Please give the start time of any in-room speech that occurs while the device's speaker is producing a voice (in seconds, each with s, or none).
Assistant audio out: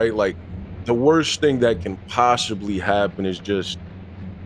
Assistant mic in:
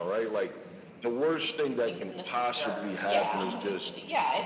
1.8 s